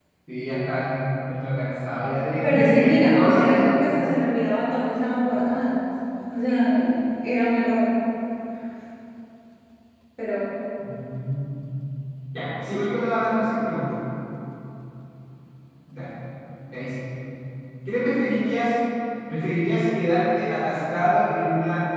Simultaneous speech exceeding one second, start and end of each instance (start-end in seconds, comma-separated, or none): 2.4-4.1